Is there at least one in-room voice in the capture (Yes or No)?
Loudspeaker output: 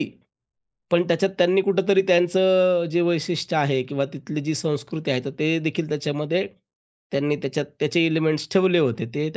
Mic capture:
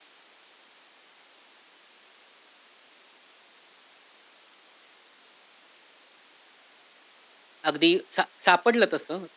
Yes